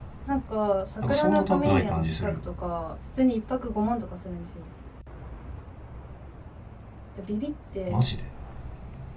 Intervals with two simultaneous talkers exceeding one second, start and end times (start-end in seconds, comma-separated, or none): 1.0-2.4